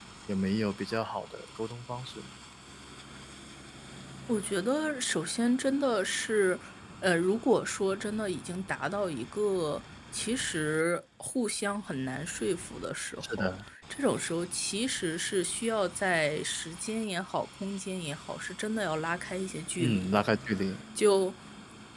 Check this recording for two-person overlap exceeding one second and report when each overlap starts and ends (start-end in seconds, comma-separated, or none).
none